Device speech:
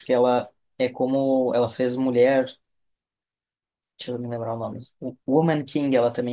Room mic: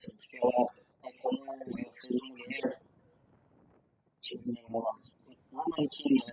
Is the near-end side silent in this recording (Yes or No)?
Yes